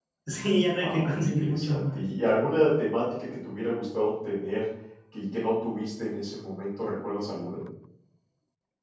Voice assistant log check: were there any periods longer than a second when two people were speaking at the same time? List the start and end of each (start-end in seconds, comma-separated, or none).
0.7-2.1